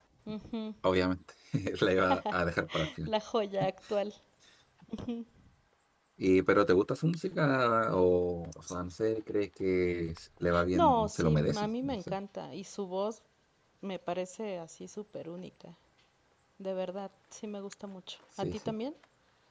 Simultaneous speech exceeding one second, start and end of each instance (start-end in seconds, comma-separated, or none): 10.7-12.2